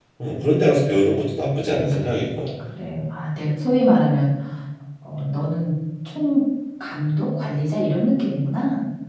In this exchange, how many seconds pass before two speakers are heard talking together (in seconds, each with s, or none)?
none